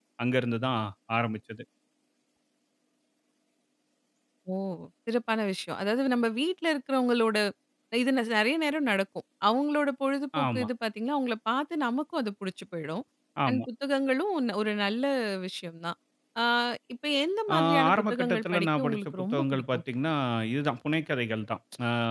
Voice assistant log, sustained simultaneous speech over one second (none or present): present